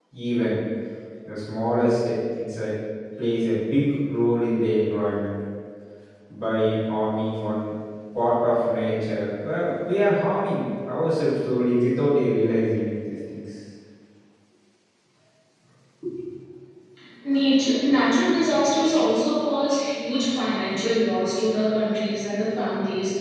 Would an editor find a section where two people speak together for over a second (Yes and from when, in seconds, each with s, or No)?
No